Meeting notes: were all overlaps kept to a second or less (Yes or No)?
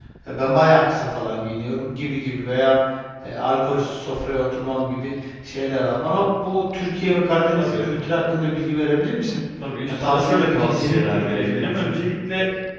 No